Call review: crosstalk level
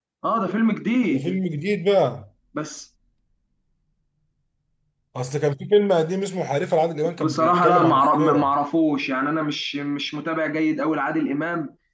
present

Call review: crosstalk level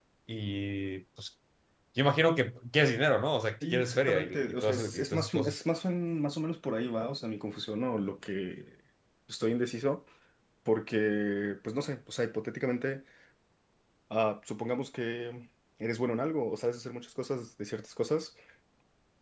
present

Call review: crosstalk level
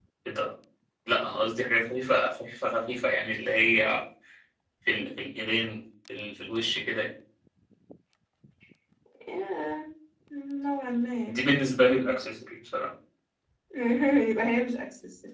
none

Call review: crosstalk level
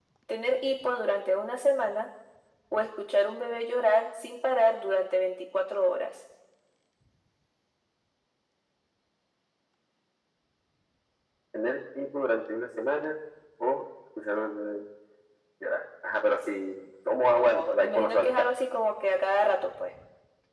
present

